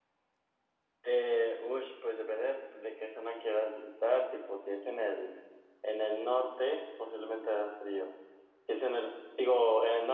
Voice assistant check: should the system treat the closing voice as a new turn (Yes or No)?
No